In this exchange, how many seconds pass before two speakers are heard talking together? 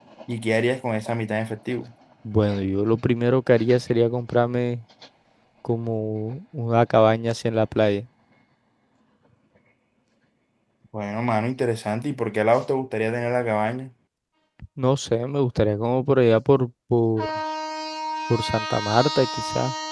none

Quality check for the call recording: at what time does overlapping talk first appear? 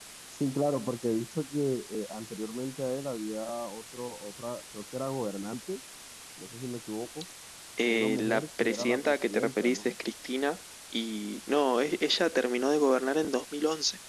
7.9 s

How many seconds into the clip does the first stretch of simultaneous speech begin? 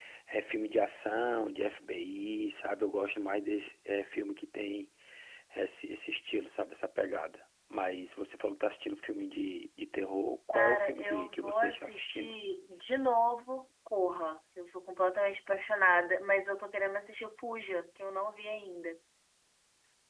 10.5 s

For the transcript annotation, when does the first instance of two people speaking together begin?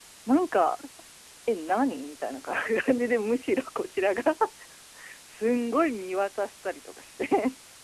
none

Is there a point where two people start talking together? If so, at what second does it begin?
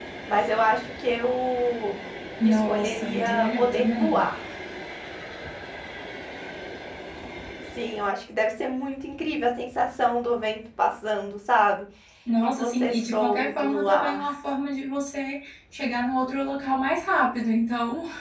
2.4 s

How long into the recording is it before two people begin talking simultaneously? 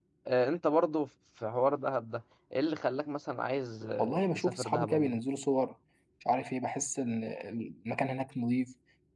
4.0 s

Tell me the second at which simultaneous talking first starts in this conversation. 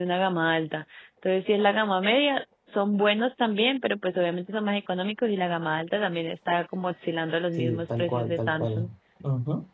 7.6 s

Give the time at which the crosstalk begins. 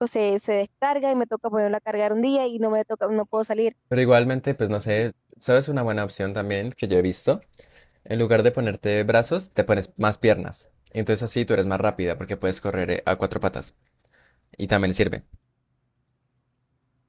none

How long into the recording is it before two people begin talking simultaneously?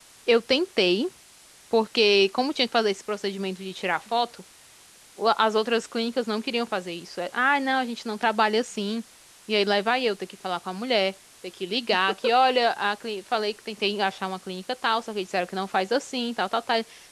none

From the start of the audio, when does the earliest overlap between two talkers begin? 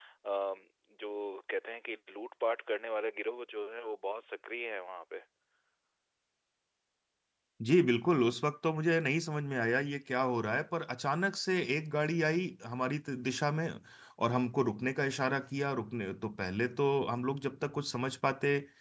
none

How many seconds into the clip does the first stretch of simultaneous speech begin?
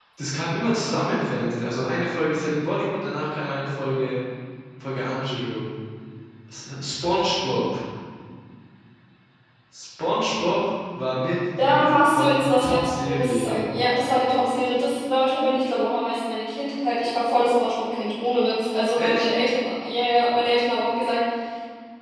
11.6 s

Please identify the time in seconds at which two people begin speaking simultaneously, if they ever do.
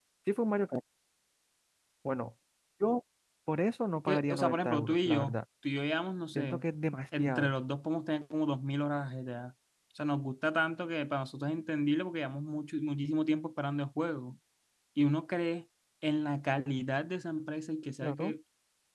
4.0 s

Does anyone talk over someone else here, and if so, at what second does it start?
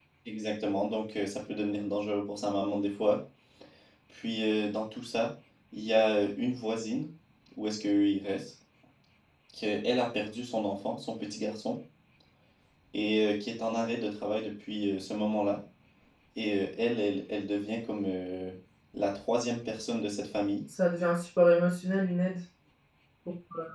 none

